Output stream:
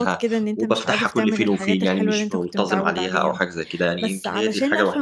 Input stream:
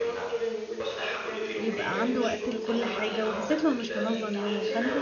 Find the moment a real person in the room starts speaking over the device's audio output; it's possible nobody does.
1.6 s

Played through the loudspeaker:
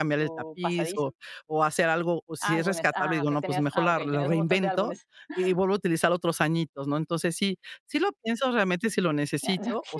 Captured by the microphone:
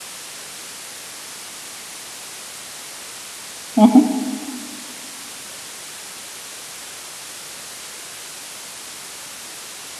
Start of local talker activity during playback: 3.8 s

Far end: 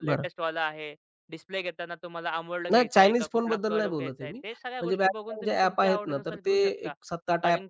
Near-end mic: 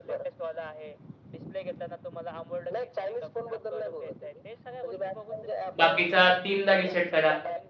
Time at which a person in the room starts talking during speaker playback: 5.8 s

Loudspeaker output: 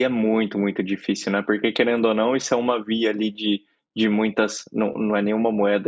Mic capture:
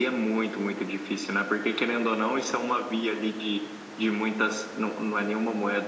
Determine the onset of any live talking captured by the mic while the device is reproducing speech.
none

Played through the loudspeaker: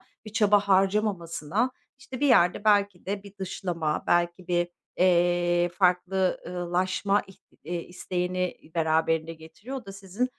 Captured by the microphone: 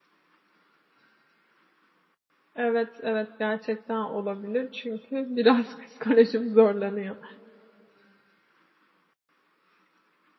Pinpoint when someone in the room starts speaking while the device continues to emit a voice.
2.5 s

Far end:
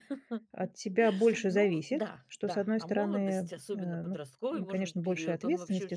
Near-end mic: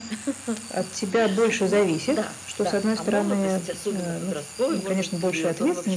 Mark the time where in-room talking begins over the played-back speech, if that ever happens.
none

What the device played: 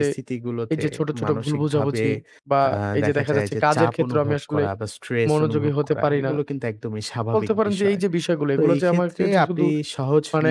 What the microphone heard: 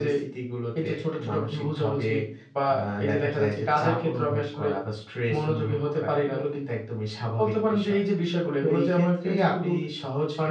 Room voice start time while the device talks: none

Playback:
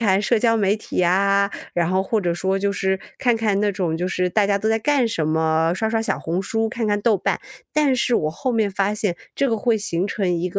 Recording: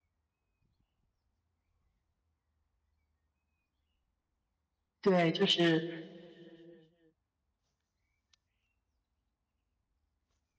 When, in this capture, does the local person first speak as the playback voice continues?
5.0 s

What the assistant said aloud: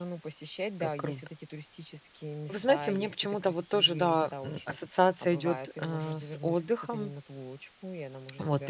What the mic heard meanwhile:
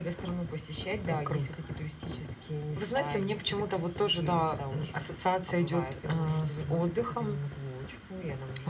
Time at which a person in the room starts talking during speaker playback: none

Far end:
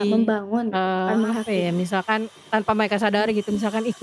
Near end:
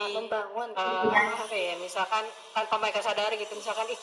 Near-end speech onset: 0.8 s

